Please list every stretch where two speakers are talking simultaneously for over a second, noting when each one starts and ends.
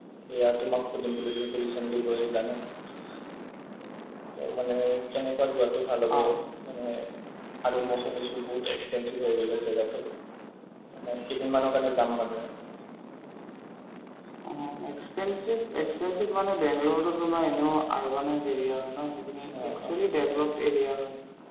none

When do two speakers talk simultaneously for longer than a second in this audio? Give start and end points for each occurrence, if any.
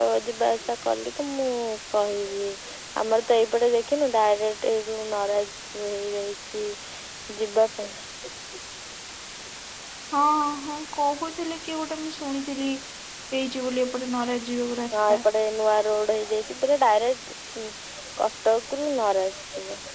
none

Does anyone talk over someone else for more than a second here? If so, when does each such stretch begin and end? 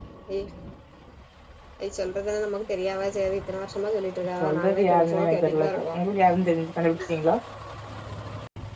4.4-5.8

